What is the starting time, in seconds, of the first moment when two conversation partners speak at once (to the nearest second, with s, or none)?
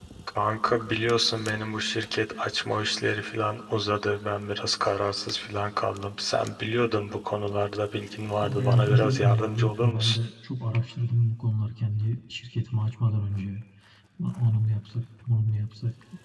8 s